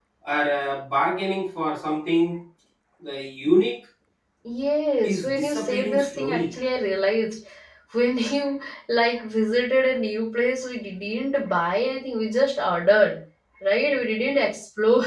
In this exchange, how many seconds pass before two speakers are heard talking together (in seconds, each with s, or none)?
5.0 s